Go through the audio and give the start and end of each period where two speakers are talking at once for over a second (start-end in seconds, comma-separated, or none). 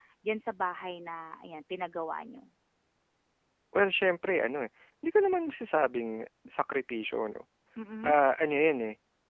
none